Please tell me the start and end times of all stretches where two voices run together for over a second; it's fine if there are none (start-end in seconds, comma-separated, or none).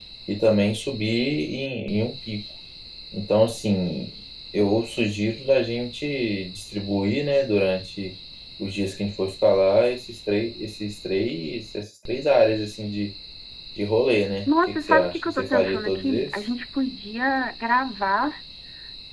14.5-16.4